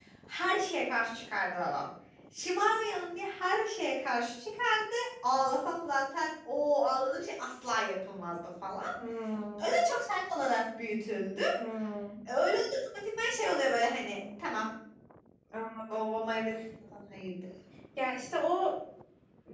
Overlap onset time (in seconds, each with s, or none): none